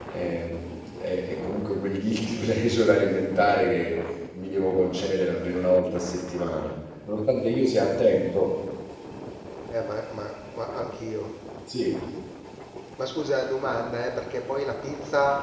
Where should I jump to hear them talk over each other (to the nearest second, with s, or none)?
none